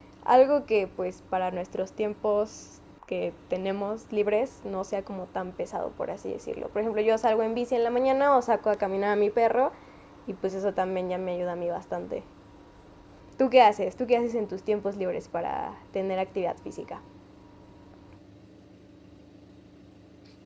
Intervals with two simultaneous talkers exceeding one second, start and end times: none

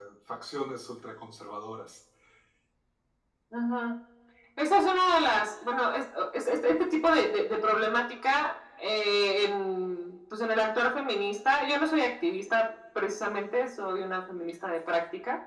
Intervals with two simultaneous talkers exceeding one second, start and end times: none

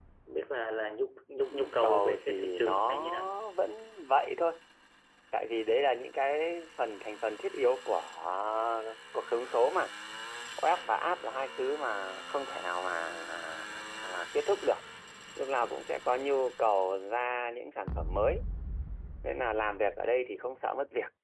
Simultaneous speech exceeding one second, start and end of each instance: 1.5-3.3

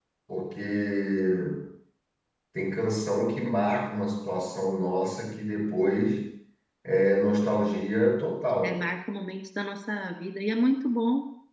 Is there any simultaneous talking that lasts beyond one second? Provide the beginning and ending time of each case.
none

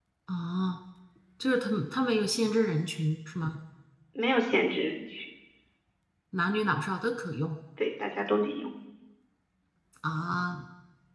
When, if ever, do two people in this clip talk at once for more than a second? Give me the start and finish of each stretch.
none

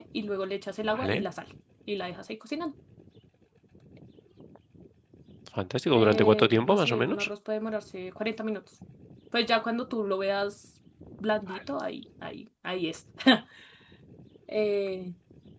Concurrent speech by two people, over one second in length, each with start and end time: 5.9-7.3

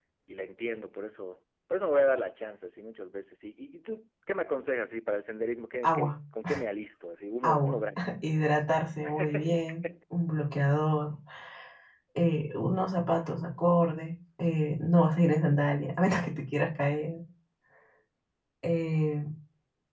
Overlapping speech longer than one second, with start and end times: none

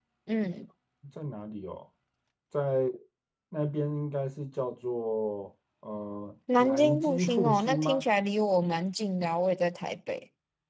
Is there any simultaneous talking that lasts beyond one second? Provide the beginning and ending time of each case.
6.6-8.1

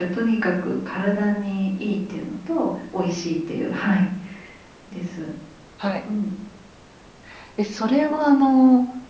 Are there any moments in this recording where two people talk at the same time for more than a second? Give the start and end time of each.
none

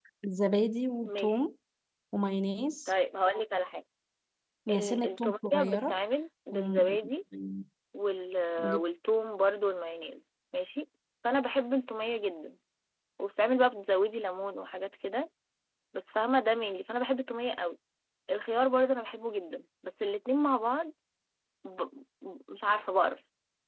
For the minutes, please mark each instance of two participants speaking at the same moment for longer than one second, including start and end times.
4.7-6.0

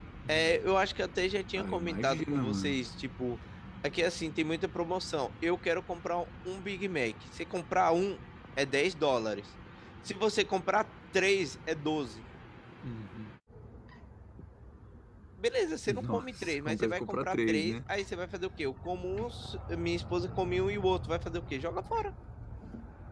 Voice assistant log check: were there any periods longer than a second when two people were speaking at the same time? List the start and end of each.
1.6-2.8, 15.9-17.8

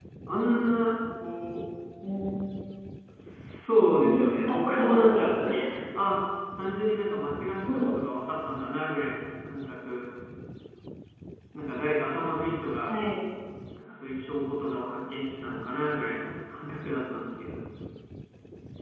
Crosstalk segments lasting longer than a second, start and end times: 4.0-5.2

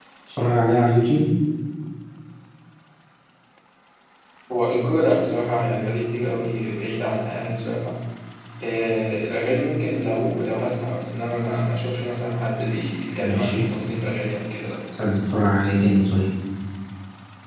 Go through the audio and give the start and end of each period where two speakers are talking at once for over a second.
none

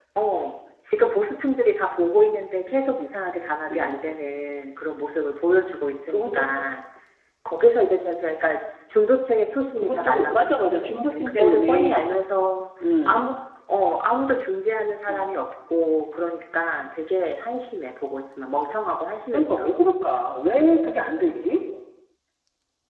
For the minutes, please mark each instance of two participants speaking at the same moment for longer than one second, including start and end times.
9.8-12.1

